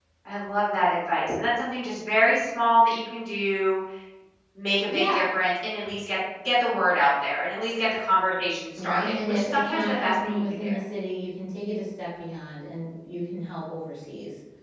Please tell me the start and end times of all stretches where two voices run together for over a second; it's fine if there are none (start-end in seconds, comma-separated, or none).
8.8-10.6